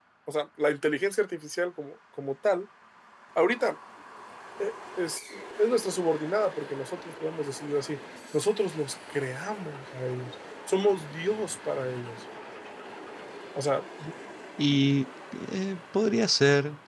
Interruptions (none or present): none